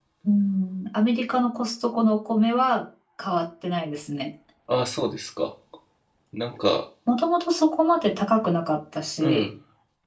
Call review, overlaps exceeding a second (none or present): none